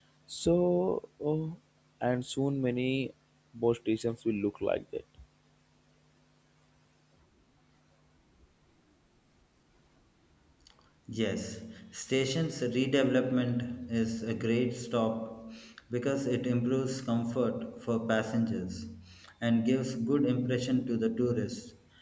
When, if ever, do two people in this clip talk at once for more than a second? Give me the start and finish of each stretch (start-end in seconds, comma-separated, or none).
none